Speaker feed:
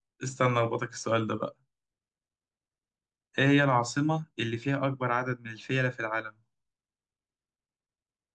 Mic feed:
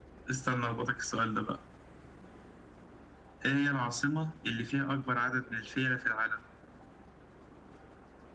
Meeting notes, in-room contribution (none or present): none